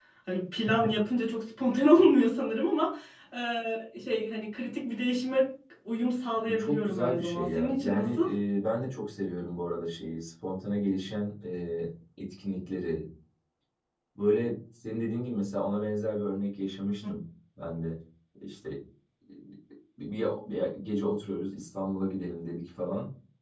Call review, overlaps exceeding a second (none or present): present